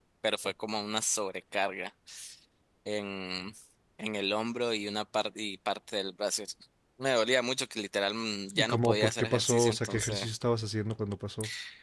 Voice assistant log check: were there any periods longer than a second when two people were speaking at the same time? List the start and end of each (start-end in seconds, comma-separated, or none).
8.6-10.3